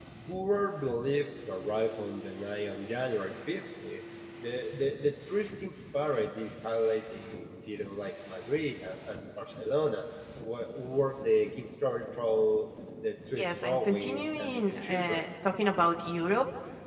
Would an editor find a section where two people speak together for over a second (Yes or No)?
Yes